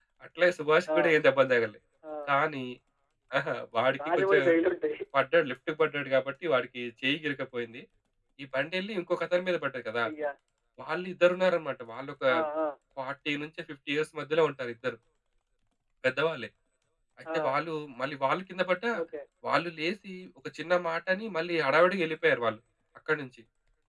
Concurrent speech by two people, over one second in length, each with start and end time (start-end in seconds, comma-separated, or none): none